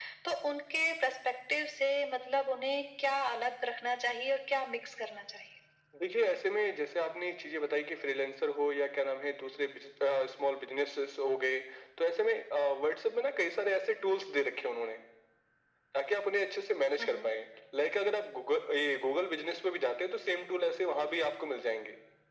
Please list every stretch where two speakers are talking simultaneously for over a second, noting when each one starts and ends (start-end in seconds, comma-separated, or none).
none